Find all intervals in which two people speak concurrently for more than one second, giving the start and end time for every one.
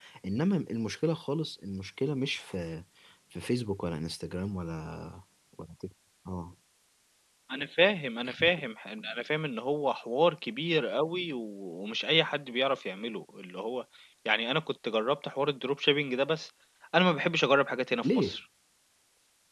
none

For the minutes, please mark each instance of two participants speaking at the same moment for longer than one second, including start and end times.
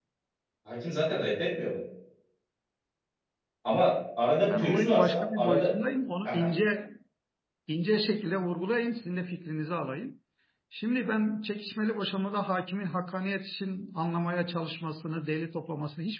4.4-5.7

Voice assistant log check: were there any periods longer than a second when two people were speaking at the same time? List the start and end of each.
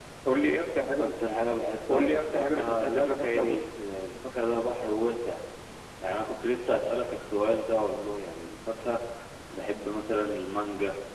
1.9-3.7

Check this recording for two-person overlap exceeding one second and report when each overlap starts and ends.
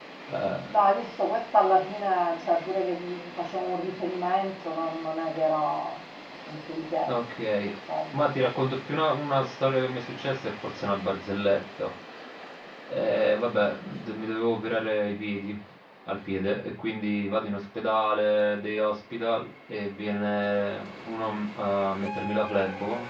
none

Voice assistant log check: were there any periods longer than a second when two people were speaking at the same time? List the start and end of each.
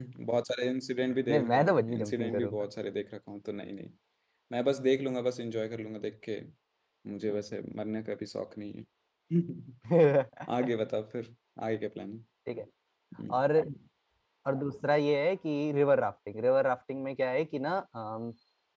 1.3-2.7

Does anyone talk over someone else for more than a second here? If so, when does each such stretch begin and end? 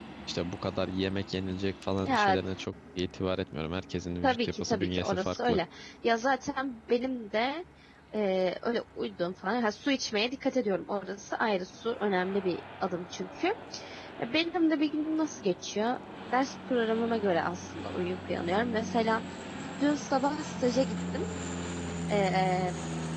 4.2-5.6

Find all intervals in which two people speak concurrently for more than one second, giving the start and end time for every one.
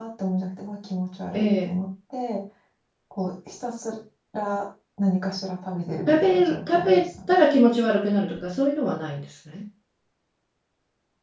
6.1-7.4

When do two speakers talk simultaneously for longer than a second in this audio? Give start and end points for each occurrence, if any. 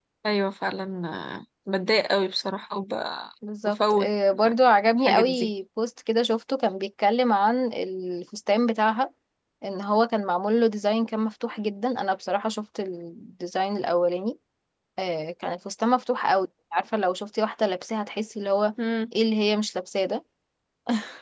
none

